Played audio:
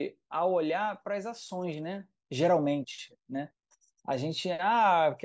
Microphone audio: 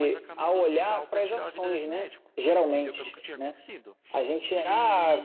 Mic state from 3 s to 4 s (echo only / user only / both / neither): both